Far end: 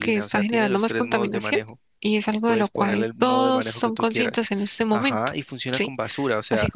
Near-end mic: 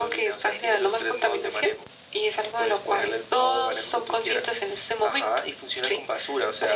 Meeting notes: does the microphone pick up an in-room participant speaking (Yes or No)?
No